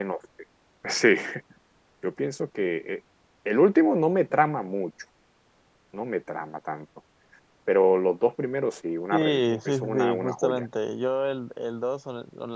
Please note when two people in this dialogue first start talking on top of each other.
9.1 s

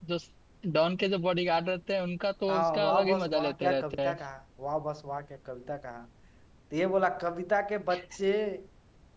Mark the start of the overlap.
2.5 s

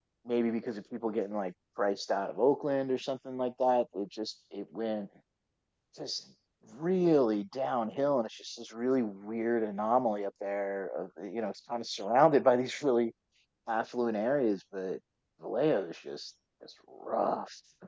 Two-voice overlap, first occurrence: none

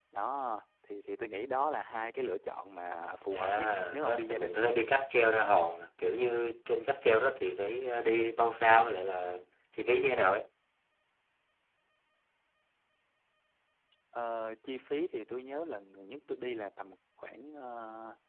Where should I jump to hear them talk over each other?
3.3 s

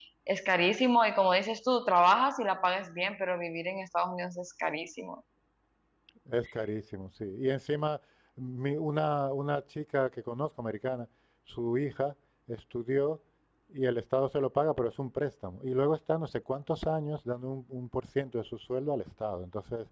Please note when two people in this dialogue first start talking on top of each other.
none

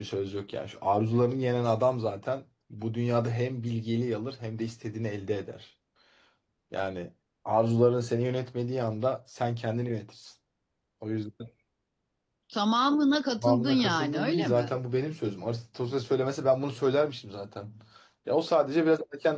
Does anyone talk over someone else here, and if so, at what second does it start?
13.4 s

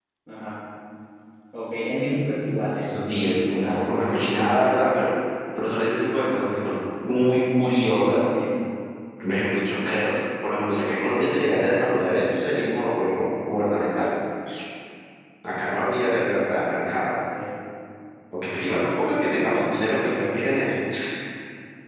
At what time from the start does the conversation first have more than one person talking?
2.7 s

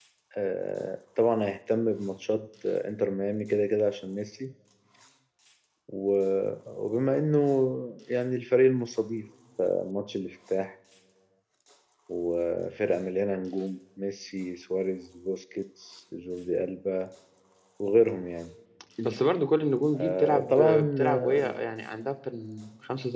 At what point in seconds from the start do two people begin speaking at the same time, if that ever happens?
19.9 s

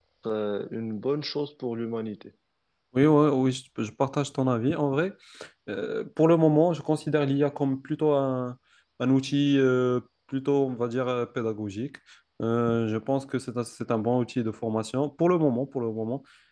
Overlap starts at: none

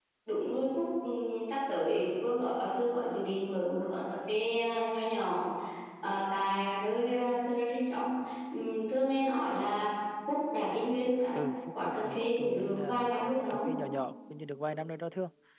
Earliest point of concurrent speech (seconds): 11.8 s

